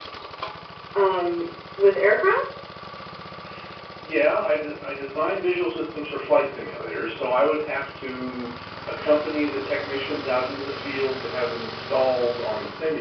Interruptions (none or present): none